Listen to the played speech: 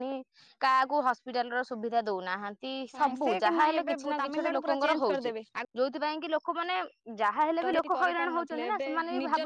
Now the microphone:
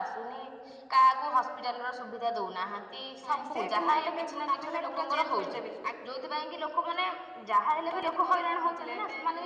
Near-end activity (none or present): none